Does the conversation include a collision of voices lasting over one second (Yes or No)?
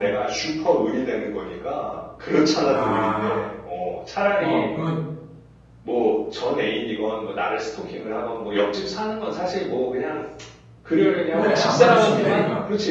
Yes